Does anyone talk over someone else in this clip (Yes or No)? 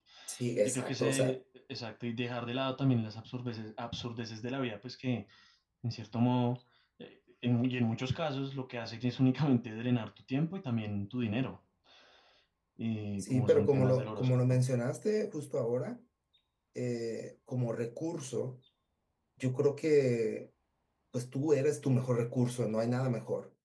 Yes